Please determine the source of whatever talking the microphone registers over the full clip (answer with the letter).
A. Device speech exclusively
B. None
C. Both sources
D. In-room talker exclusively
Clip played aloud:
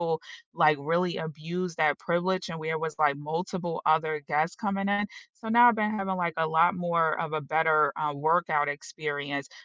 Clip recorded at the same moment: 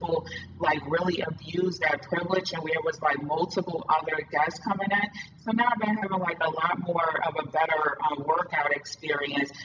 A